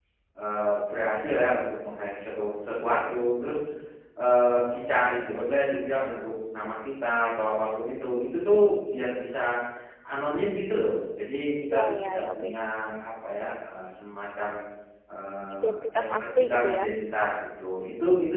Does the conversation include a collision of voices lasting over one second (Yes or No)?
Yes